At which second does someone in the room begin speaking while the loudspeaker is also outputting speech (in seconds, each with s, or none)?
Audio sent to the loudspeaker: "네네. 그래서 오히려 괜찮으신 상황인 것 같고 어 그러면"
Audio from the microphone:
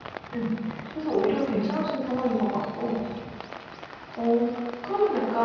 none